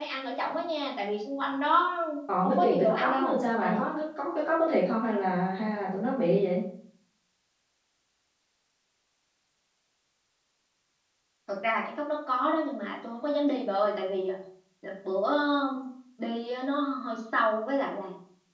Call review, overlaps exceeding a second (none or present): present